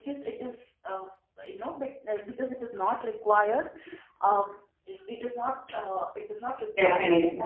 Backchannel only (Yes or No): Yes